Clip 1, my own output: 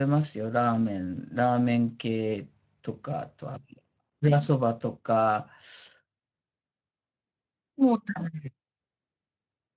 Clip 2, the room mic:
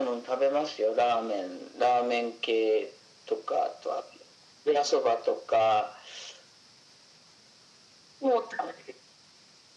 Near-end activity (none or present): none